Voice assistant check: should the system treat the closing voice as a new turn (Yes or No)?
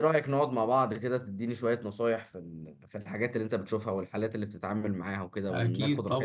Yes